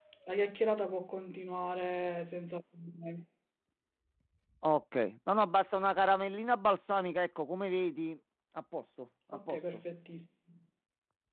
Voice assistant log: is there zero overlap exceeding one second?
Yes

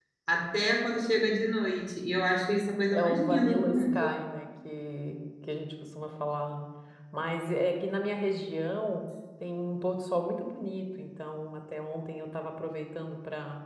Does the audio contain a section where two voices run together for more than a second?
Yes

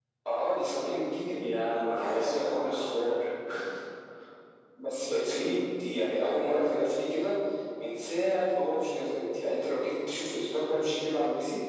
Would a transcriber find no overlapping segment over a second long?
No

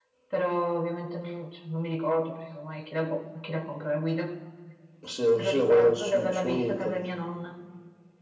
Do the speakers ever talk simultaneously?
Yes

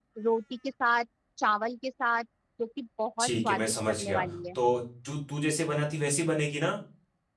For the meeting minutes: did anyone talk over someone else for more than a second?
Yes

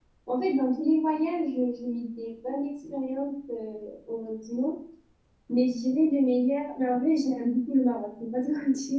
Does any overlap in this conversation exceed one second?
No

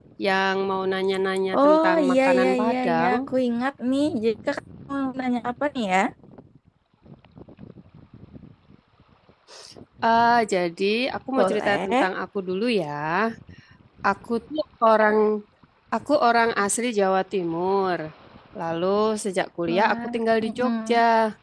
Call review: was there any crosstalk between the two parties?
Yes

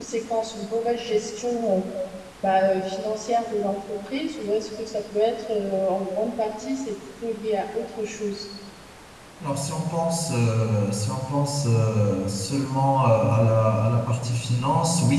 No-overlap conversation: Yes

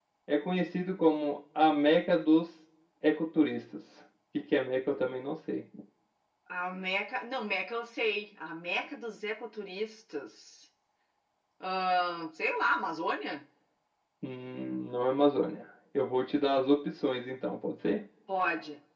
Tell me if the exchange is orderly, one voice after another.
Yes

